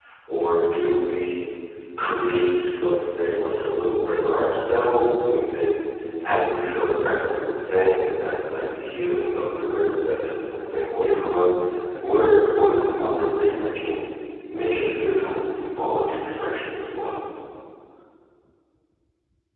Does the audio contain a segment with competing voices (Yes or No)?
No